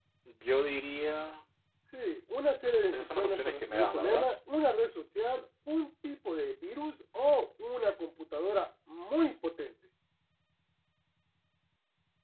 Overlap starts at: 2.9 s

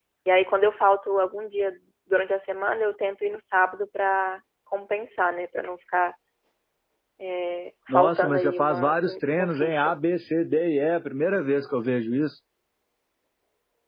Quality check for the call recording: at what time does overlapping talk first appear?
7.9 s

